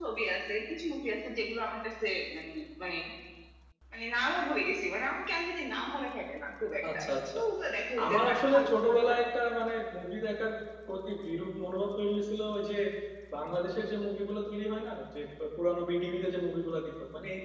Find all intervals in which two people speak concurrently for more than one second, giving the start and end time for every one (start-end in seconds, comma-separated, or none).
8.0-9.2